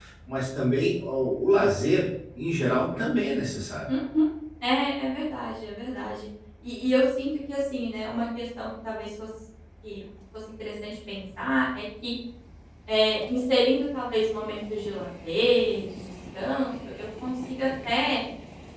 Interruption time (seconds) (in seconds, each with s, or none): none